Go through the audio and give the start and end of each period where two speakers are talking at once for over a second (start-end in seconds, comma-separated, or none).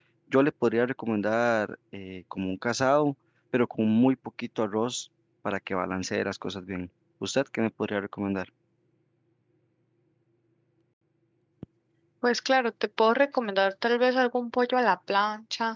none